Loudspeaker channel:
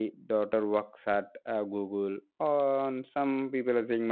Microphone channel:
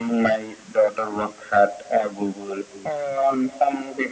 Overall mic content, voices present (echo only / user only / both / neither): echo only